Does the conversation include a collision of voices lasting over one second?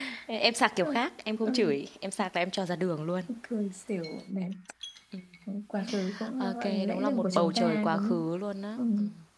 Yes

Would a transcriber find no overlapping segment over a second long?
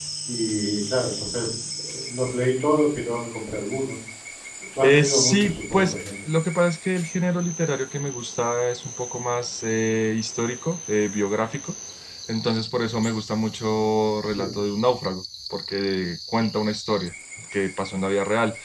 No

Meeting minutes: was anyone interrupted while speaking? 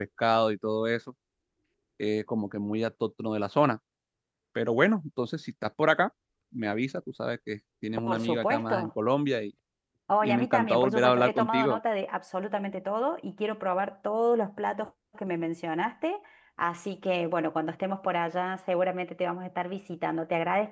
Yes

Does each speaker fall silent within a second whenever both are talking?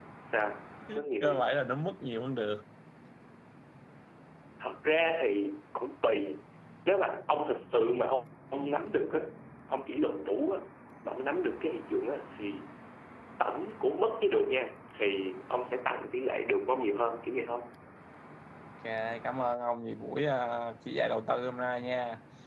Yes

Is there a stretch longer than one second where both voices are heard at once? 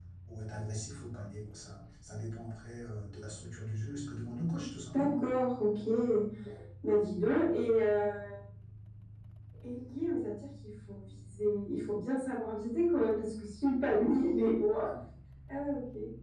No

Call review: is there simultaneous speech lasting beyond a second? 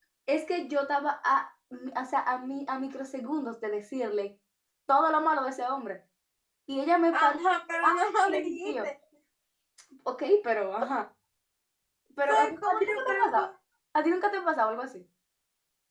Yes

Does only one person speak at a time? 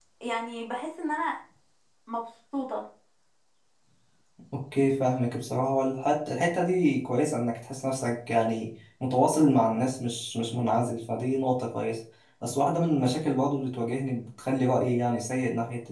Yes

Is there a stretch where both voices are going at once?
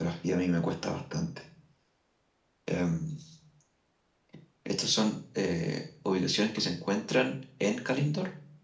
No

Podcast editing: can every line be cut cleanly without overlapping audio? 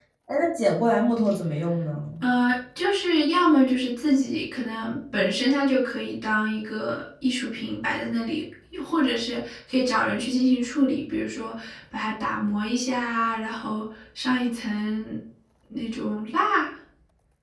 Yes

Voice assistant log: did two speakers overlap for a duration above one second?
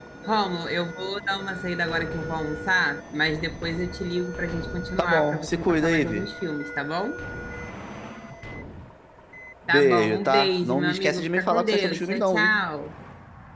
Yes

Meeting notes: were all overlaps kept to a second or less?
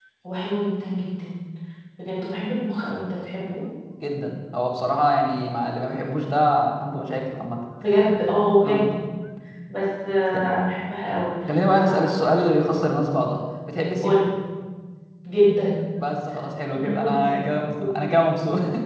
No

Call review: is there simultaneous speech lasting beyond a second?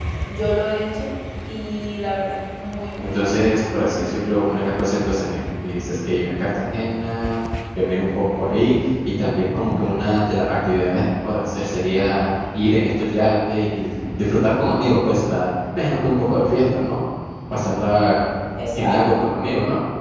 No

